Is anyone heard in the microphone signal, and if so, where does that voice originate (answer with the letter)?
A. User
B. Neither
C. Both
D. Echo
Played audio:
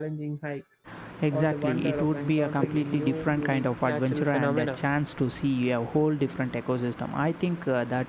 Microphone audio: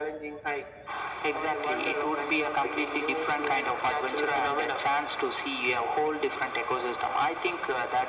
D